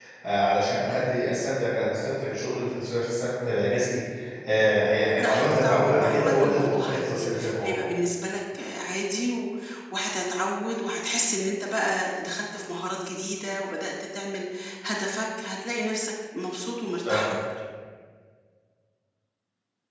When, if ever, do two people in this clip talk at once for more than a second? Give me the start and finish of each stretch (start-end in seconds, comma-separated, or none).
5.2-7.8